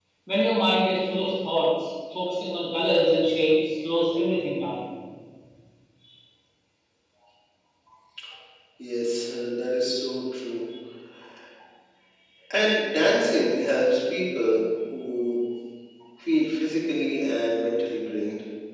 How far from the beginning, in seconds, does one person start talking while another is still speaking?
none

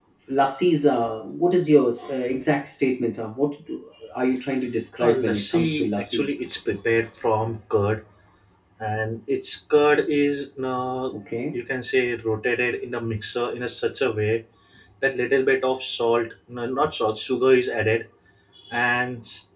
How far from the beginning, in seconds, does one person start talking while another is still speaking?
5.0 s

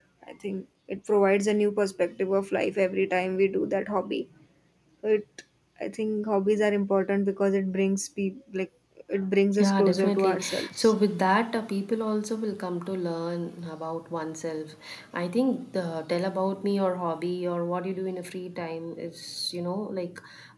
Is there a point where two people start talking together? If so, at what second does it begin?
9.6 s

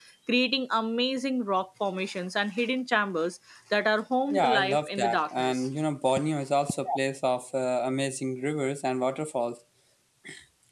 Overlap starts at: 4.3 s

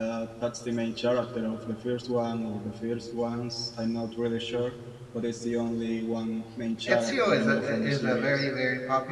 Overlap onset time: 6.9 s

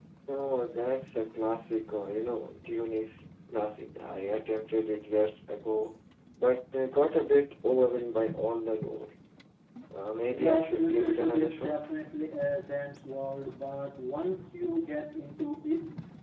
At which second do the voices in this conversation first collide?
10.2 s

